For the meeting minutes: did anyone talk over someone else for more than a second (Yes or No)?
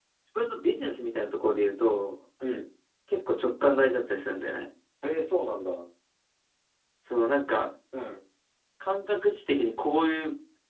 No